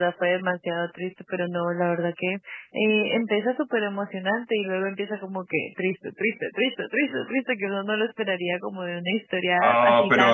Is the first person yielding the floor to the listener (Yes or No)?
Yes